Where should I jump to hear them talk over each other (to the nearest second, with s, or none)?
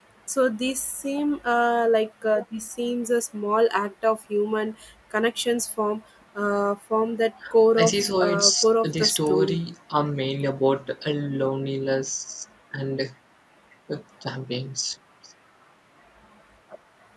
8 s